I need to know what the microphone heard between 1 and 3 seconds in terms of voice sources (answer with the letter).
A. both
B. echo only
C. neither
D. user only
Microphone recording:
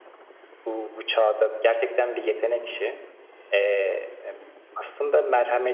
B